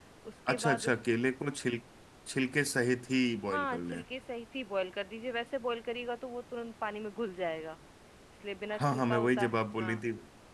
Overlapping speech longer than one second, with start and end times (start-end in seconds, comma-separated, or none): 8.8-10.0